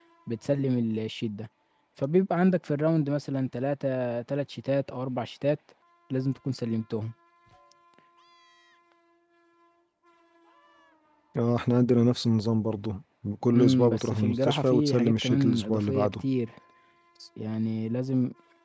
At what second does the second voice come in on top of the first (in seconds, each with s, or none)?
13.6 s